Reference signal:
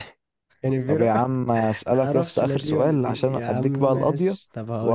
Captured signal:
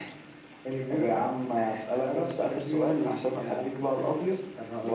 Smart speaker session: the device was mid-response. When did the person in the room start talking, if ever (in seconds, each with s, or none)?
none